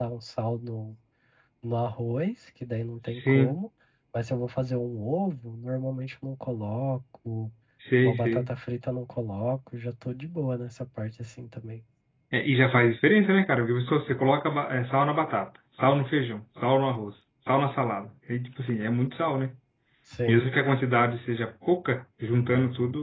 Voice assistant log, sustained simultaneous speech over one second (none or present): none